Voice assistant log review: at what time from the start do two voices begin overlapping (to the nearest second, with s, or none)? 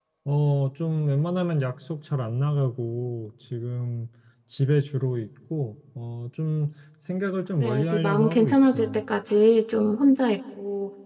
8 s